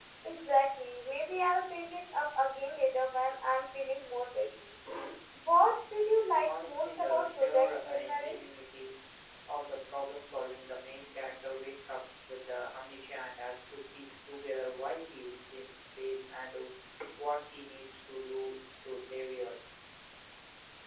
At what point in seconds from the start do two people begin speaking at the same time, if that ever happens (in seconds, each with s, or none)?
6.5 s